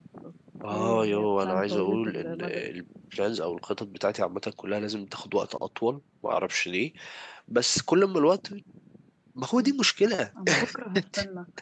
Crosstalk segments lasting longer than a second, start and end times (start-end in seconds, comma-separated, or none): 0.7-2.6